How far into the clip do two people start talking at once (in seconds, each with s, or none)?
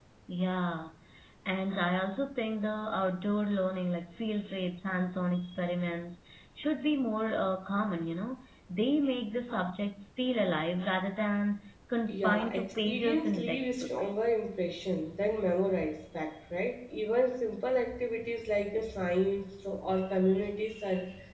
12.1 s